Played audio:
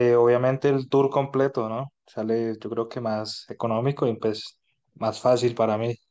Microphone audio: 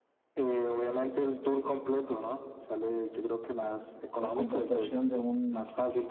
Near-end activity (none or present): present